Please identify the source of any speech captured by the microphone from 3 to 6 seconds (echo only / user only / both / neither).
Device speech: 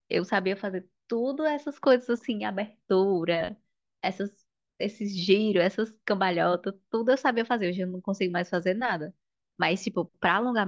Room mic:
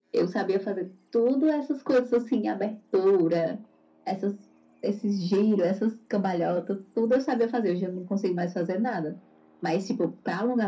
echo only